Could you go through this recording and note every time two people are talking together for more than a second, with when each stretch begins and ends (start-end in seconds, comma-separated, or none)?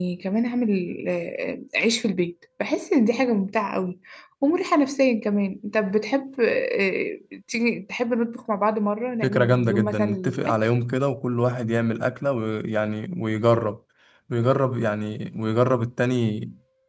9.2-10.6